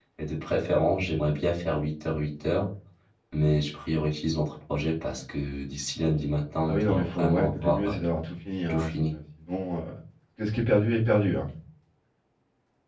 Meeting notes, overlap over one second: present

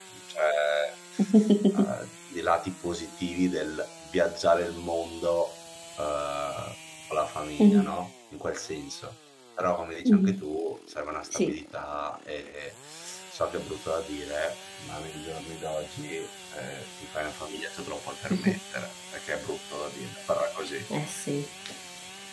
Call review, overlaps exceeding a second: none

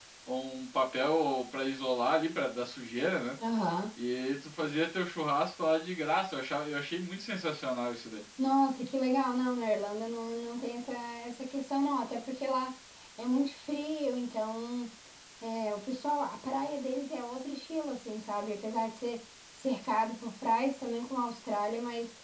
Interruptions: none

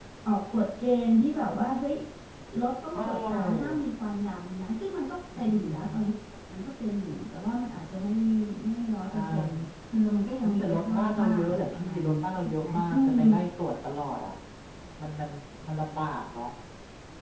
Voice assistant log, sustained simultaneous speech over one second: present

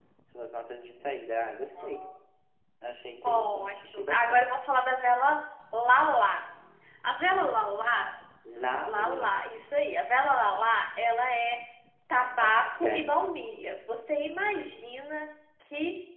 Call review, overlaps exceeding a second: present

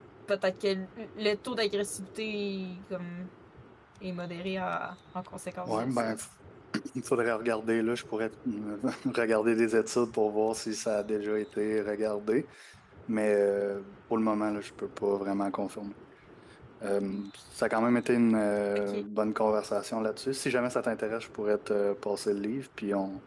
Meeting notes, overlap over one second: none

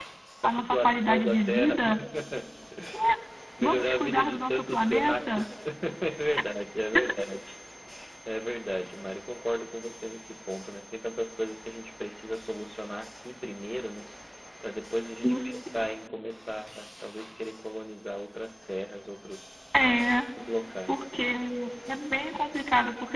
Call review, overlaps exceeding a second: present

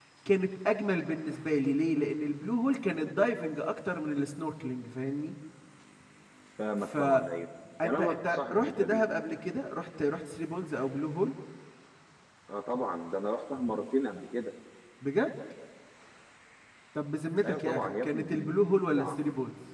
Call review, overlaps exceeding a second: present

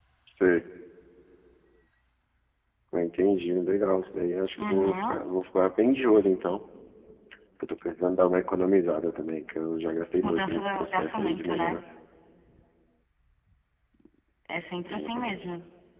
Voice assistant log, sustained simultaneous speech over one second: present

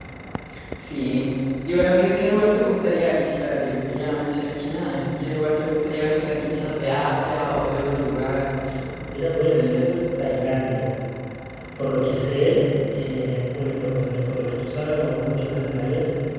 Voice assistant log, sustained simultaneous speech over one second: none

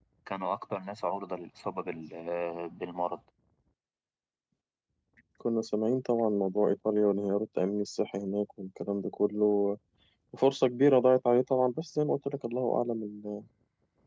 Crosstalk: none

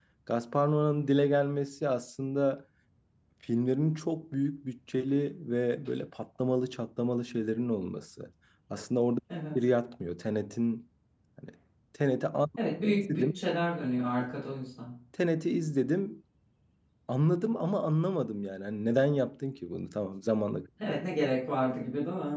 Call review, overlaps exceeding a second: none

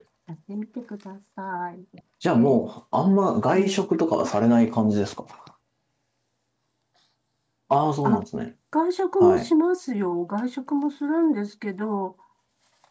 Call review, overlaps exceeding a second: none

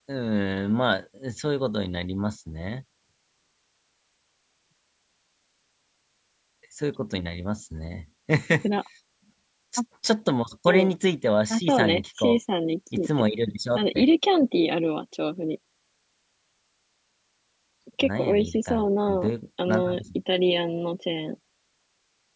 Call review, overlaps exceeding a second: present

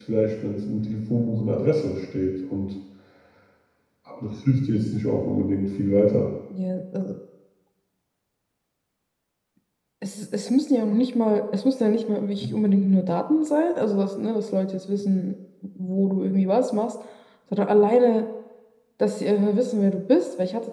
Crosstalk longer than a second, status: none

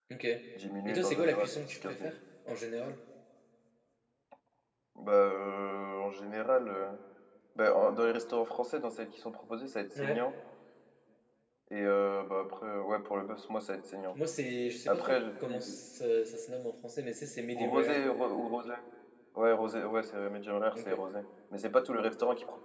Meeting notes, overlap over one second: present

